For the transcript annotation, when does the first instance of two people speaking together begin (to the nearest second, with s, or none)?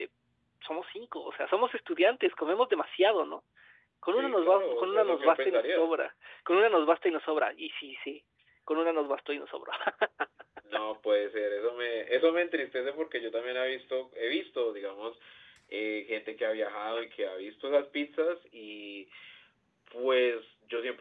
4 s